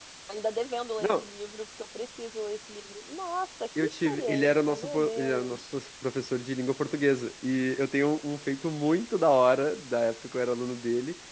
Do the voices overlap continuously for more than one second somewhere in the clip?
Yes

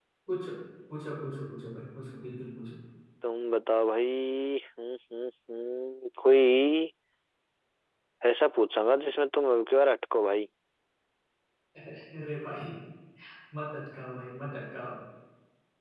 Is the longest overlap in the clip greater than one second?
No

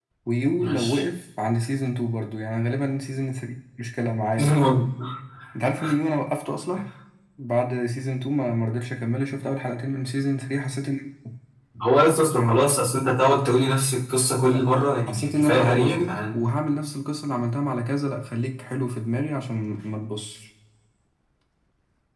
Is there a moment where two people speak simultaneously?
Yes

